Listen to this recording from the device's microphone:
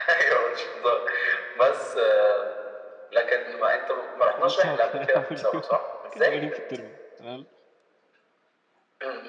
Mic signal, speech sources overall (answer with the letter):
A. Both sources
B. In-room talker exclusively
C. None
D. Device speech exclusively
A